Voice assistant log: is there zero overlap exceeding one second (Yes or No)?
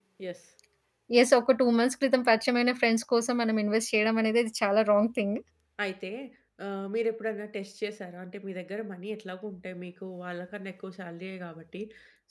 Yes